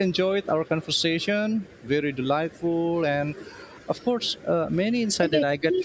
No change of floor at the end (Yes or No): No